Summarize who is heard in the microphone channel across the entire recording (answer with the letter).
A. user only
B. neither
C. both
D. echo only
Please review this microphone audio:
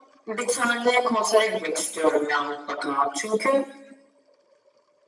D